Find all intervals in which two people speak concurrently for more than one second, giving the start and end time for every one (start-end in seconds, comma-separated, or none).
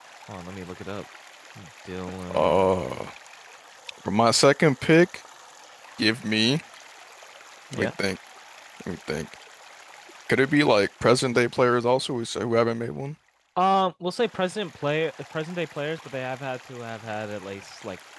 none